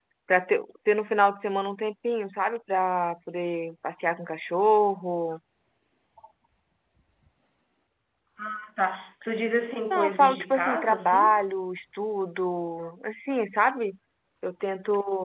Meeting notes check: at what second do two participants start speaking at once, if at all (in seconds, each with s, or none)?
9.9 s